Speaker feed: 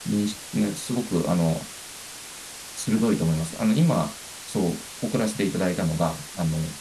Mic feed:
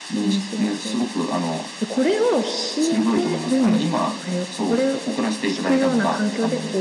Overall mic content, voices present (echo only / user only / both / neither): both